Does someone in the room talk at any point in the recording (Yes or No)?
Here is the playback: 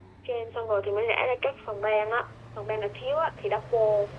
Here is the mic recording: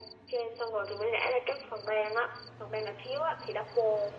No